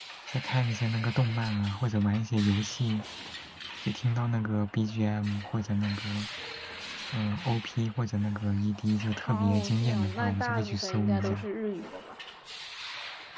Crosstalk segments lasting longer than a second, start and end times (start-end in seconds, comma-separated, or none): 9.2-11.5